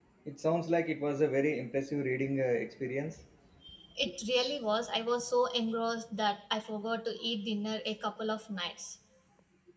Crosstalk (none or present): none